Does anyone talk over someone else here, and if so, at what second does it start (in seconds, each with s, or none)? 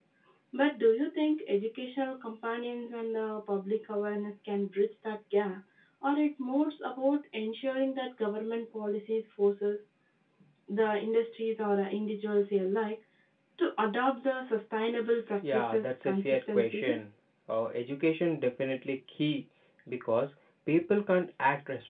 15.4 s